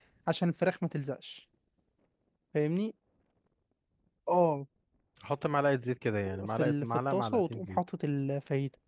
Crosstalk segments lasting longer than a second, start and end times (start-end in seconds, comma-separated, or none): 6.4-7.8